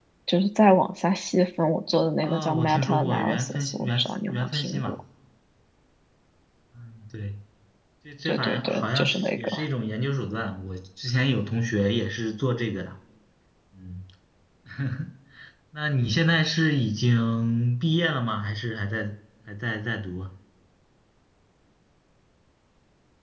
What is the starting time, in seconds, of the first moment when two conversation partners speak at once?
2.2 s

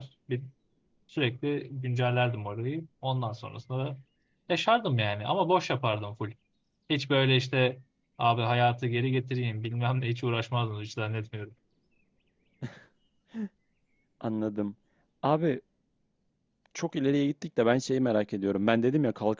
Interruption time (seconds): none

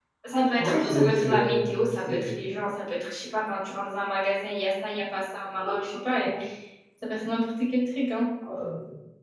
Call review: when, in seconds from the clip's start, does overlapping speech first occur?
0.6 s

